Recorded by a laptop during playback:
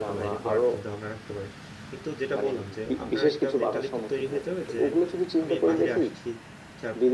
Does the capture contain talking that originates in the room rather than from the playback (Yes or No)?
Yes